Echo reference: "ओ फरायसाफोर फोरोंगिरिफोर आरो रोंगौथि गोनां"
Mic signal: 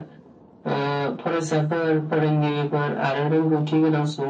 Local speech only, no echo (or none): none